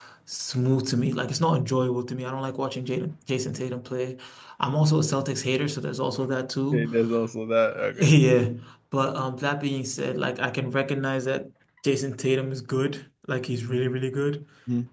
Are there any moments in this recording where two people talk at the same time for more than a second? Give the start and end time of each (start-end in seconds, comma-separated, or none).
none